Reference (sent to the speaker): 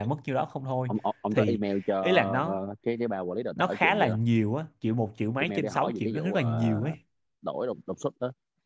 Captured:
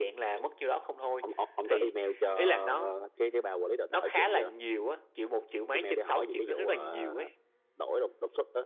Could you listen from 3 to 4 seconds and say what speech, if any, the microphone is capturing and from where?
echo only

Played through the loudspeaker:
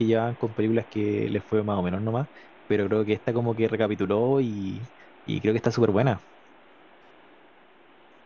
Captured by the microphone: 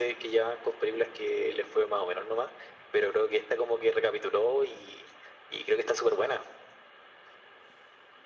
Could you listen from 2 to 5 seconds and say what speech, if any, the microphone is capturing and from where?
echo only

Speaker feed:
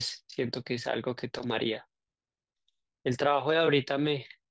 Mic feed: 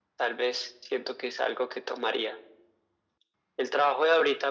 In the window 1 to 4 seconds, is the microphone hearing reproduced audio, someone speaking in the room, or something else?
echo only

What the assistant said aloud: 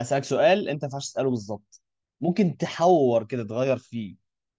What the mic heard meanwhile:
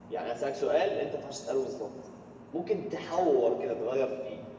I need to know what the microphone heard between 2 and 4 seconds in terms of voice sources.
echo only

